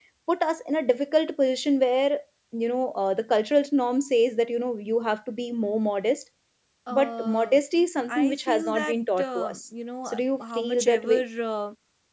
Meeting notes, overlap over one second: present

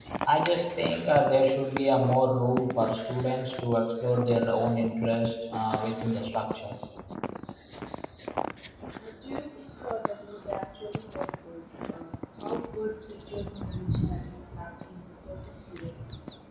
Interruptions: none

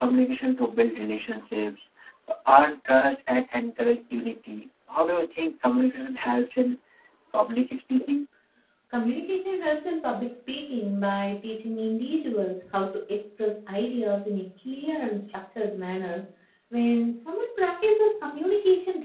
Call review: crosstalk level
none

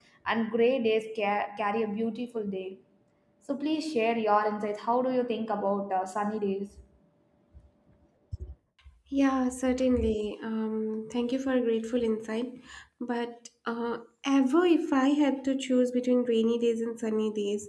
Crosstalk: none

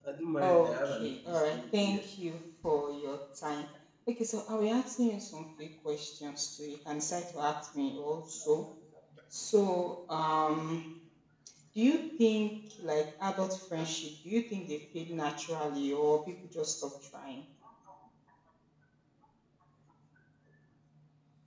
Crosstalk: present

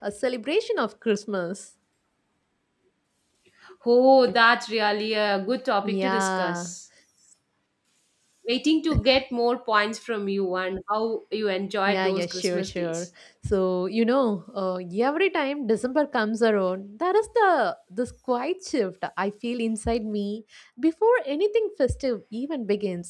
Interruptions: present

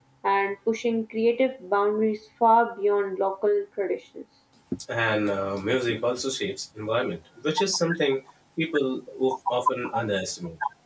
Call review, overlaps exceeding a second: none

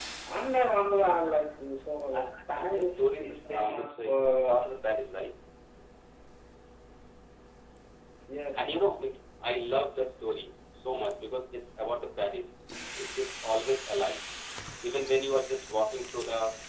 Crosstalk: present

